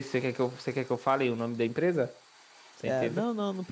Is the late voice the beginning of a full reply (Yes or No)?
Yes